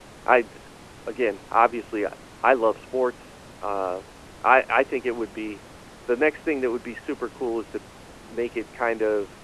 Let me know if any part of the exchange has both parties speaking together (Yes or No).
No